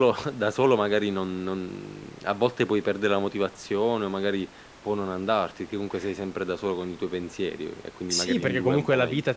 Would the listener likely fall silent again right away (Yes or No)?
No